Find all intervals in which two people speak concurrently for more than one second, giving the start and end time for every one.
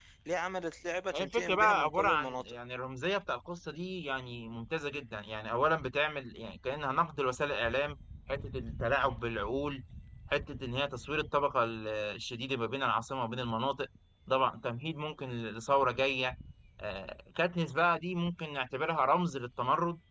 1.1-2.6

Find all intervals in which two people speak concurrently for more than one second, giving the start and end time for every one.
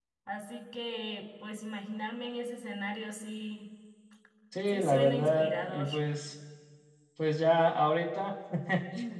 4.7-5.9

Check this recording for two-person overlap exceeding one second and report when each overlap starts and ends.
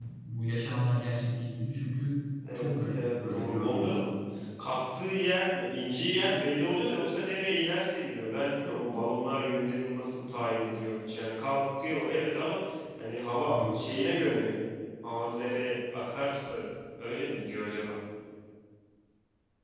2.6-4.1

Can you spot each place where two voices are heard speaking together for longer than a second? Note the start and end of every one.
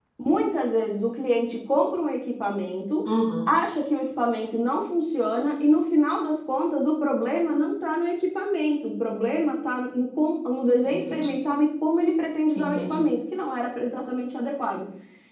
none

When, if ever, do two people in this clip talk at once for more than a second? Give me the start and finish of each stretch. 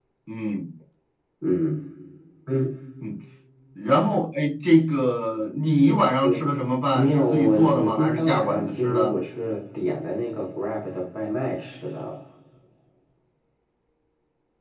6.9-9.1

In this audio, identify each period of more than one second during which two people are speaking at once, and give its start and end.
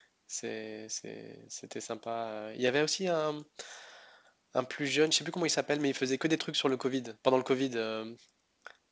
none

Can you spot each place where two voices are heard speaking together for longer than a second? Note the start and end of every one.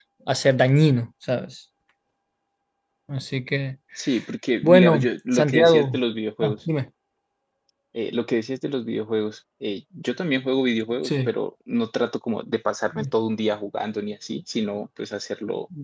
4.6-6.0

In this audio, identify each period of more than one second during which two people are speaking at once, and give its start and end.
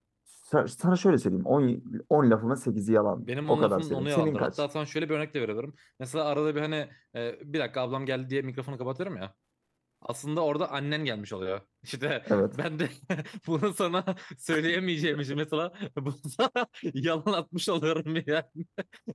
3.1-4.5

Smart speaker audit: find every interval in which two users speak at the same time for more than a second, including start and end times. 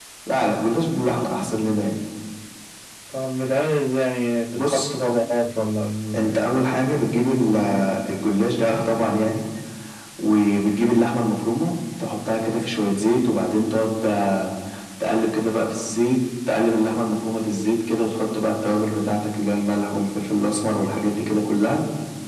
none

